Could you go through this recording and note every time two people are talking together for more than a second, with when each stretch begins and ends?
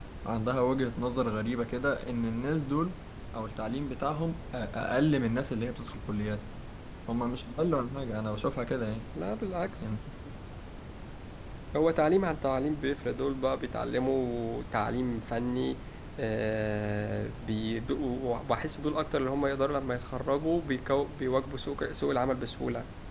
none

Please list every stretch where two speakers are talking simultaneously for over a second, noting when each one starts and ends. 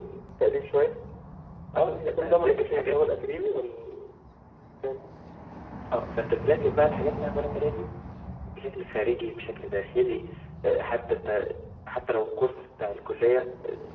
1.8-3.1

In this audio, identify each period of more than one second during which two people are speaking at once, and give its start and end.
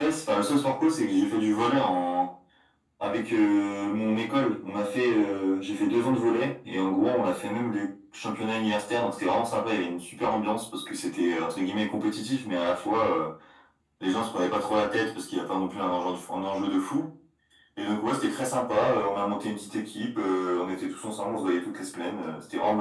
none

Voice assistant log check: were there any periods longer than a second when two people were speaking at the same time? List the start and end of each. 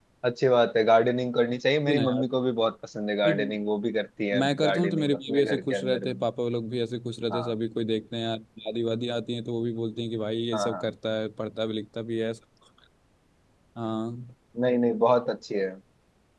4.4-6.2

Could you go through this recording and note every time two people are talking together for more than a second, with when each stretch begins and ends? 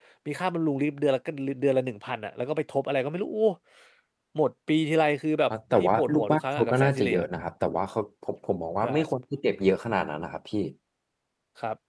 5.5-7.2

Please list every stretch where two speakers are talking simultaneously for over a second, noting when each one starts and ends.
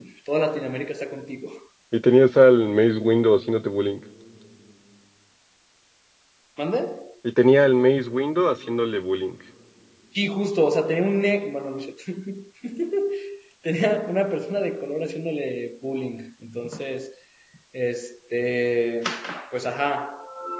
none

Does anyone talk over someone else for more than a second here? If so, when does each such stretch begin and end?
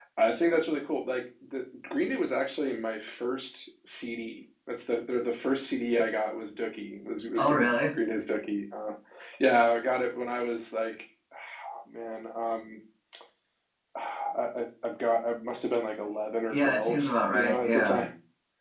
16.5-18.0

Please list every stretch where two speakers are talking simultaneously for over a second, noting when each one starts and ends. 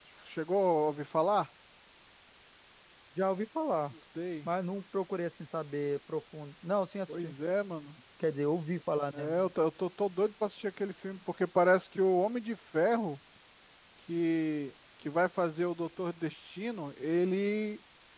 none

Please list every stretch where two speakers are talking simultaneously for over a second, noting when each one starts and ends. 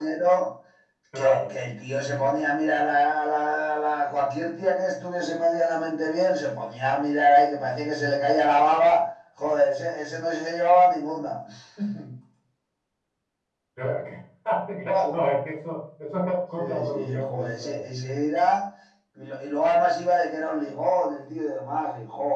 16.6-17.8

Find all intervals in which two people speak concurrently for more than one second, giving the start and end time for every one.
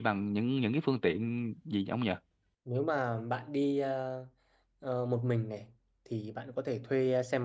none

